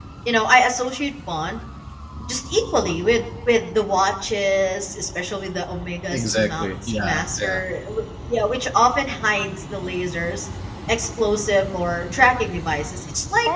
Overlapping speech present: Yes, from 6.1 s

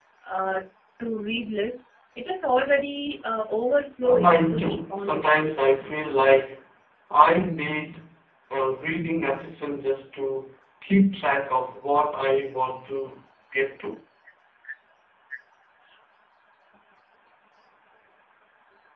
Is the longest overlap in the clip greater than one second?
Yes, from 4.0 s

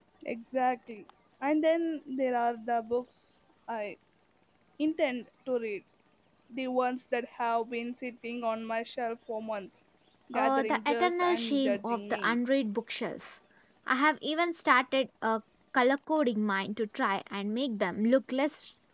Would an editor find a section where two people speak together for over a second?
Yes, from 10.3 s

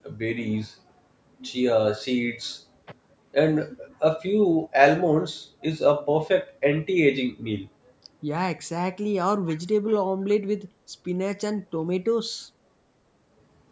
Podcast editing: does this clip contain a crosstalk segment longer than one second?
No

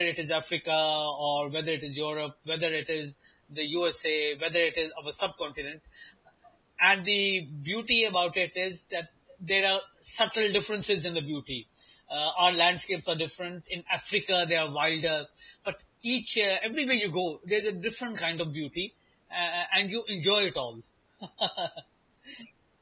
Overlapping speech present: No

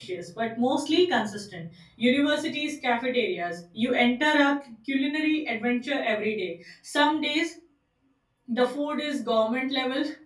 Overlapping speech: No

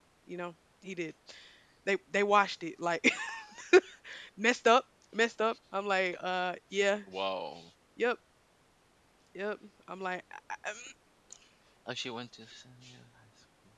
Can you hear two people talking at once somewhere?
No

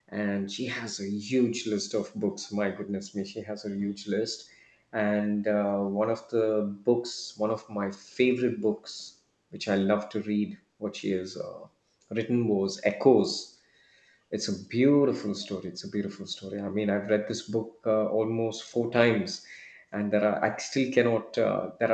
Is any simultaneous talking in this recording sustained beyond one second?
No

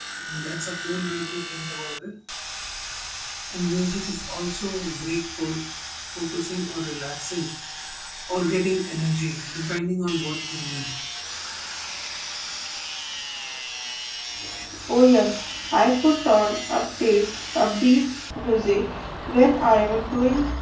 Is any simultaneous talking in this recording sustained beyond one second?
No

